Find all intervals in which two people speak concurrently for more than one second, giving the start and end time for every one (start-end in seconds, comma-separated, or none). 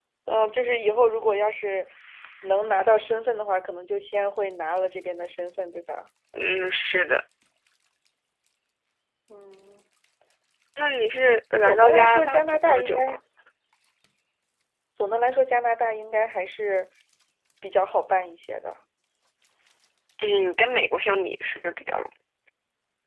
11.6-13.0